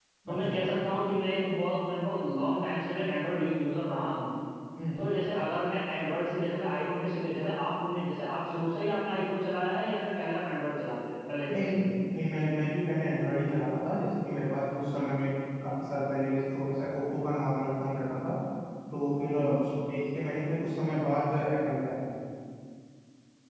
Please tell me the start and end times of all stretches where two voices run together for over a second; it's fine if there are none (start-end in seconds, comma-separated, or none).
none